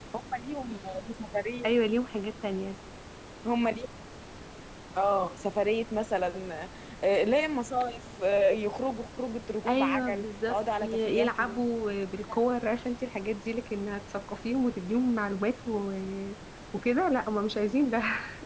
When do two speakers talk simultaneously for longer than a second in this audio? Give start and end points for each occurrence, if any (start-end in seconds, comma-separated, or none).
9.7-11.6